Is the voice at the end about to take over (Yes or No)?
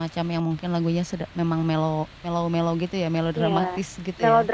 Yes